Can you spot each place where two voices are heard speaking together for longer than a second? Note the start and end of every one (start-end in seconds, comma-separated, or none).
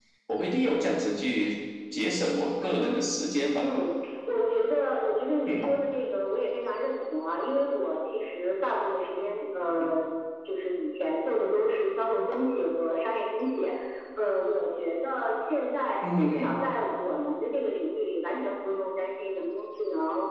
none